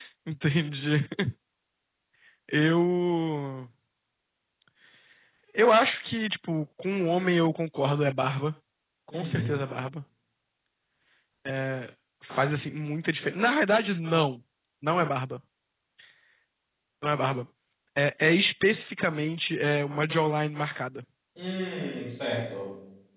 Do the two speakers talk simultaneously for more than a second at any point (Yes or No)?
No